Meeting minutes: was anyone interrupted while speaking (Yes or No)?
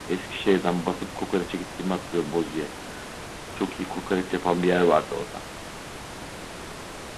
No